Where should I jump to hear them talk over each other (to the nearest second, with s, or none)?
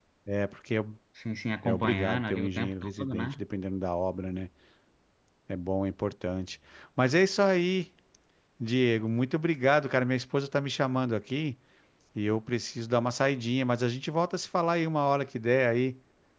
2 s